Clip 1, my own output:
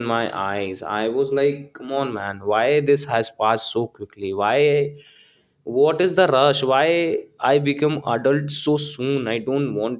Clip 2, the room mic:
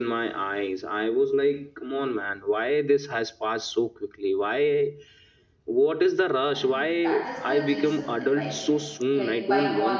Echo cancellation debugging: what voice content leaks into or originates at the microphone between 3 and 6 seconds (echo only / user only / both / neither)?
echo only